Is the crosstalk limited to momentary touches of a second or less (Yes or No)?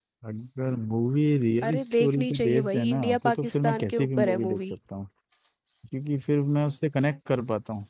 No